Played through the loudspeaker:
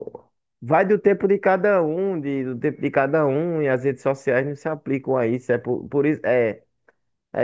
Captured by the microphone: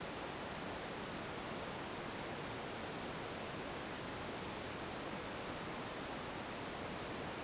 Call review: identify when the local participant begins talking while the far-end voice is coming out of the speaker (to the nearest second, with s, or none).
none